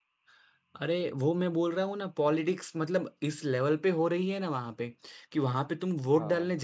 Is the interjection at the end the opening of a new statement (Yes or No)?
No